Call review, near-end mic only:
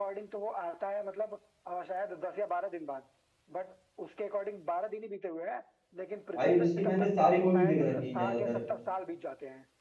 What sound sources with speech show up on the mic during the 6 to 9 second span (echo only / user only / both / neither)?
both